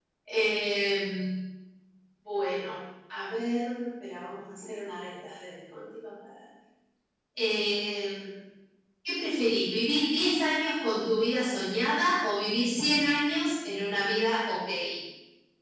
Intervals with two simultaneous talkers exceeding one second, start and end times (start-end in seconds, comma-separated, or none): none